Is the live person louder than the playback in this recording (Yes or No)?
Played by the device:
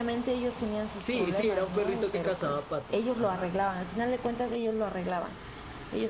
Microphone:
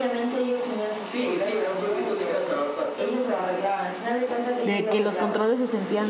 Yes